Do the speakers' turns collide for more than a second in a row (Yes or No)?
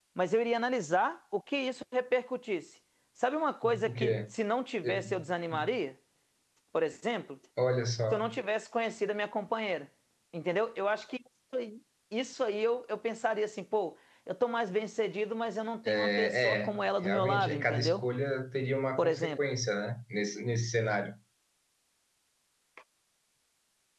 Yes